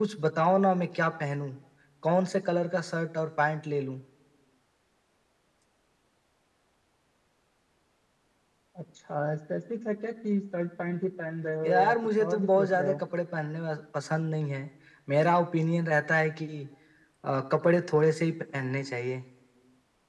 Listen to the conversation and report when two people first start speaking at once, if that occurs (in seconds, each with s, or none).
11.6 s